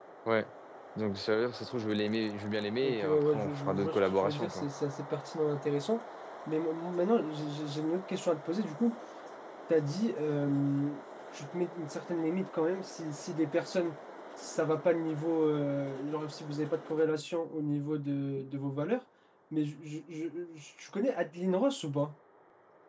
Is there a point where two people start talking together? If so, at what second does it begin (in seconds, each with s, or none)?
2.8 s